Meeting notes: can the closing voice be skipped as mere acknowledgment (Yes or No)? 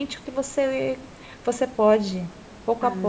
No